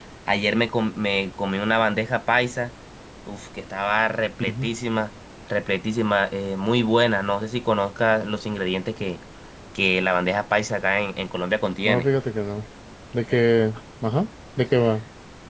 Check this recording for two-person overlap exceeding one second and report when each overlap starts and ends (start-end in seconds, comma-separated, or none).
none